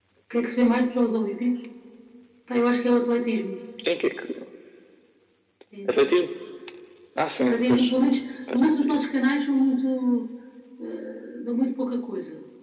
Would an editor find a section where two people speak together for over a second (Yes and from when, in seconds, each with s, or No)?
No